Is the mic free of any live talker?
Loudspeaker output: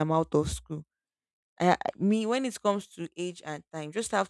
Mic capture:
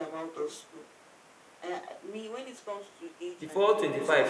No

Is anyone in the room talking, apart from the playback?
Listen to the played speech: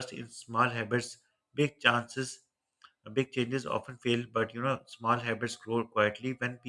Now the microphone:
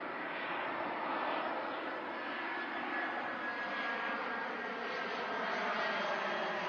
No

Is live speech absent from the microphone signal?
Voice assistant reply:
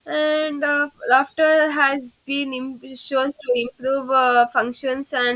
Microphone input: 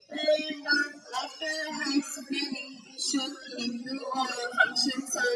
Yes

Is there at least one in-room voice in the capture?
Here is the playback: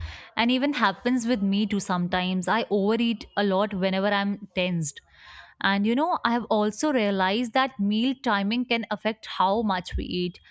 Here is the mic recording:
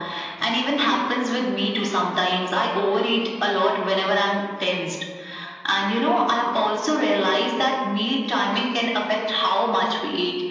No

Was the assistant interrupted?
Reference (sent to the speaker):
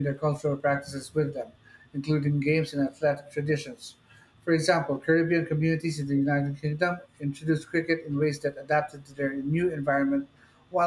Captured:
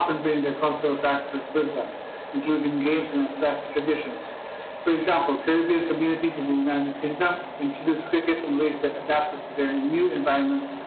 No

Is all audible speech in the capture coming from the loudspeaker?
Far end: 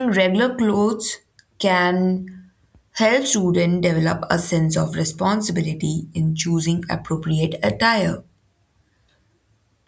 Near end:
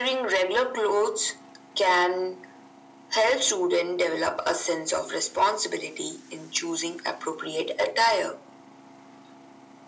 Yes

